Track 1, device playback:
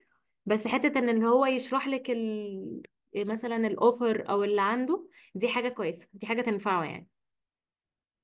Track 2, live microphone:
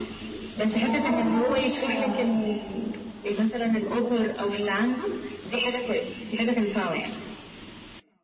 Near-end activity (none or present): present